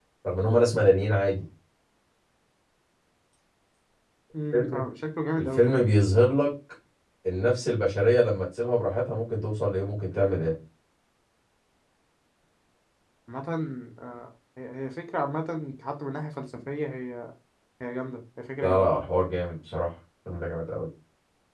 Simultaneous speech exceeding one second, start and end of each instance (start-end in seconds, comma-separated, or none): none